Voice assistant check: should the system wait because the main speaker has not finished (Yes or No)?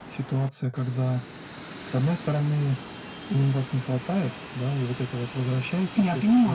Yes